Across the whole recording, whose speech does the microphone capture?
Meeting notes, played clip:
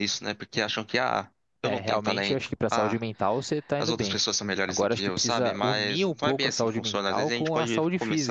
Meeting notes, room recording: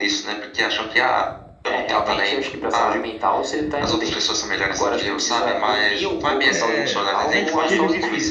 both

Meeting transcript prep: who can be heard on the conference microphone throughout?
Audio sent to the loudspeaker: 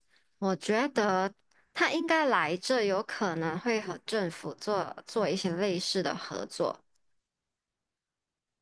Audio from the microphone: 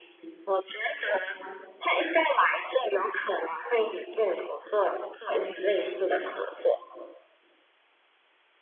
echo only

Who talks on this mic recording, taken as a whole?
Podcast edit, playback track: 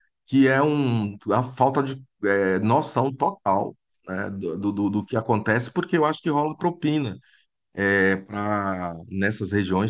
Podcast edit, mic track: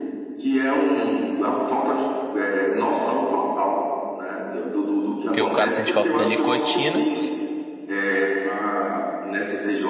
both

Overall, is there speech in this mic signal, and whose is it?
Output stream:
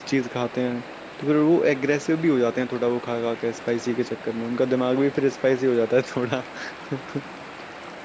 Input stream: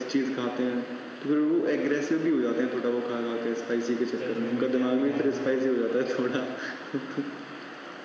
both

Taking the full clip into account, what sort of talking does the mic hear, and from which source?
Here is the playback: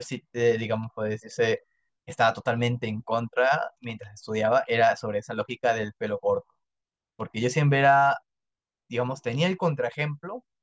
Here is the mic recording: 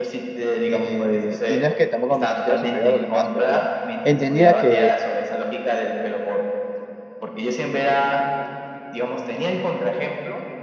both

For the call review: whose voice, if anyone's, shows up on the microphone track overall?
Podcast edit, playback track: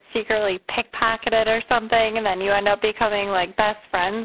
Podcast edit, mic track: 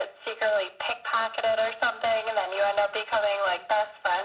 echo only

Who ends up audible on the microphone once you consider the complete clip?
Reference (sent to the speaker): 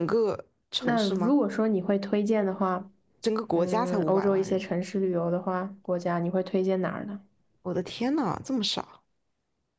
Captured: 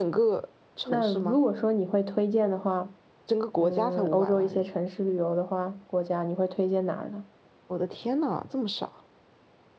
echo only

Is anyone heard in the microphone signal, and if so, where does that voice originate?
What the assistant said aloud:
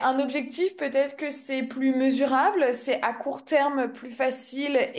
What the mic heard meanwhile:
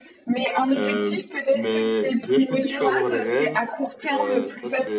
both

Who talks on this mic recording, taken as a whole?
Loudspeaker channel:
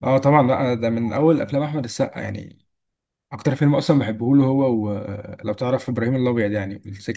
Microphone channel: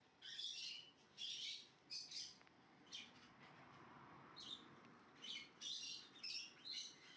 neither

